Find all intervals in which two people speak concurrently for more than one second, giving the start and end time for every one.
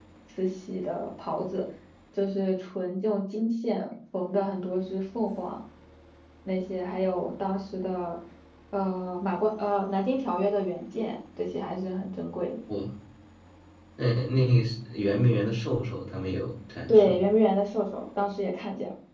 none

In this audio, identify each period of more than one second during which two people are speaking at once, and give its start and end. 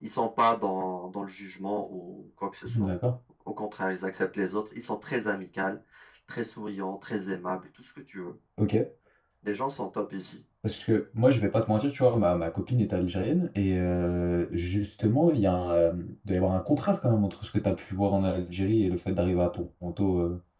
none

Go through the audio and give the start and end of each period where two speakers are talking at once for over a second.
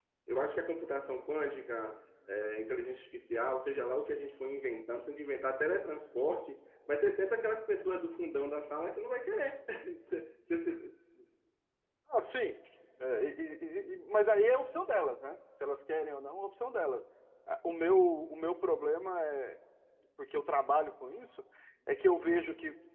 none

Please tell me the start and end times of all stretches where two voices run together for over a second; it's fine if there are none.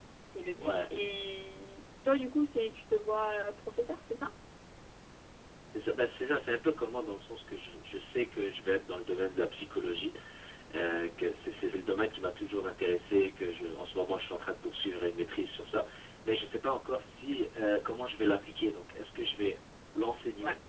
none

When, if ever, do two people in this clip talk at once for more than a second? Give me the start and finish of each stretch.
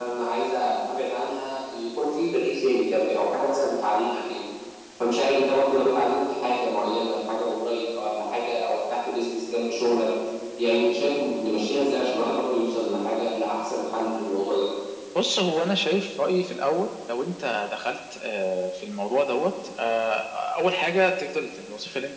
none

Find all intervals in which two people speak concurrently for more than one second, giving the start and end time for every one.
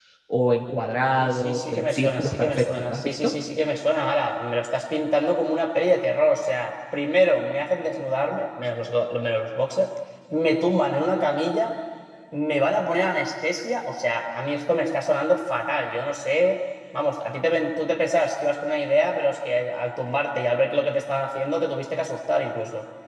1.2-3.3

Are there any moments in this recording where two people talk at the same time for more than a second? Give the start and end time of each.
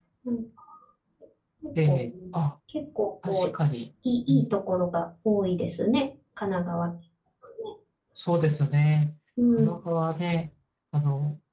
none

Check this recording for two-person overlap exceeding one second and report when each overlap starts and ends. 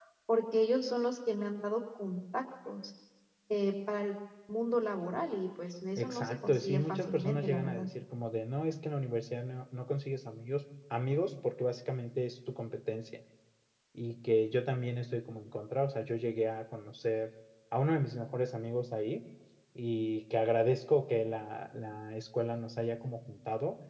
6.0-7.8

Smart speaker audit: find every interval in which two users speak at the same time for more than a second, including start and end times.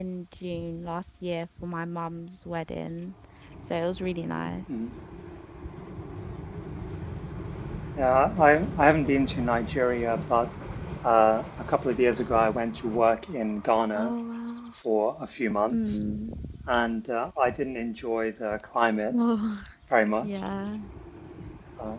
none

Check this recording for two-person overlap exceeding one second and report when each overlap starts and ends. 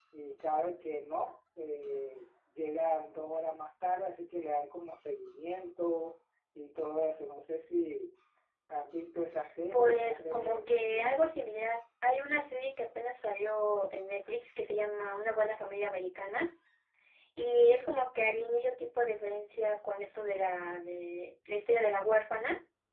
9.7-11.2

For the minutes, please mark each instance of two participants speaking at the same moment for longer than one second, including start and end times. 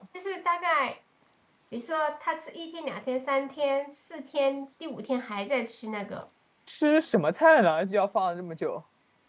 none

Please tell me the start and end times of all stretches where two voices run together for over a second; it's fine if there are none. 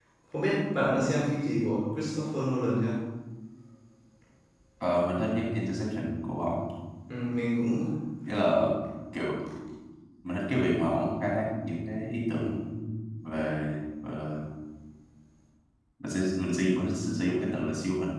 none

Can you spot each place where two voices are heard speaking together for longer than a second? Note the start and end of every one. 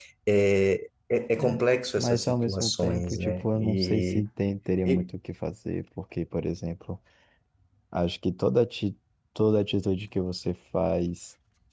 2.0-4.2

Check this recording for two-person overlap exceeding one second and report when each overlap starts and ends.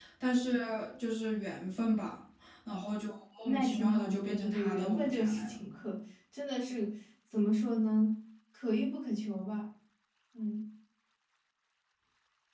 3.5-5.5

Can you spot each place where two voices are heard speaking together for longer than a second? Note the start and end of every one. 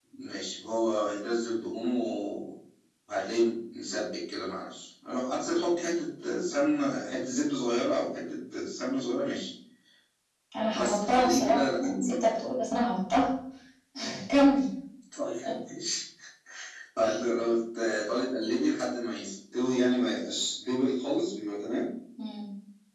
10.7-12.1

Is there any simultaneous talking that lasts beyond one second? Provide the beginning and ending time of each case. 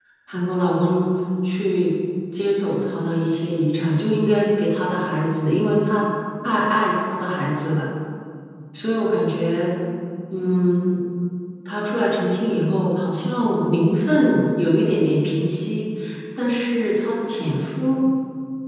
none

